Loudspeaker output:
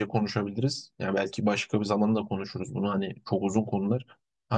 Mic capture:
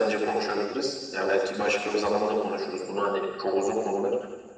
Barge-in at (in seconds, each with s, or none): none